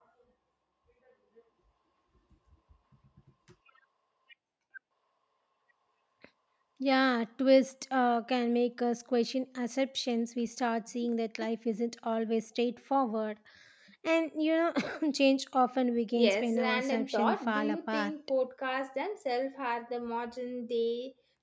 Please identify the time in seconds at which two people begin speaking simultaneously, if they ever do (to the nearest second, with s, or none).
16 s